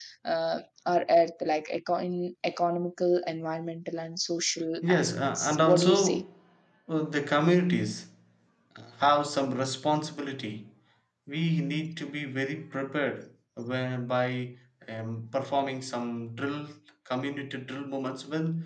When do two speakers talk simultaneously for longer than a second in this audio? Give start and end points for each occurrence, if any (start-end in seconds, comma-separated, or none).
4.8-6.2